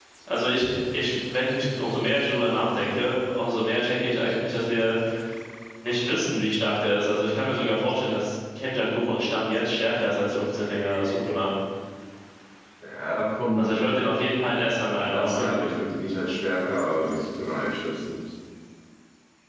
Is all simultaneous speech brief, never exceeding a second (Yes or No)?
Yes